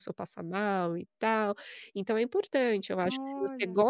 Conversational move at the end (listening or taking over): listening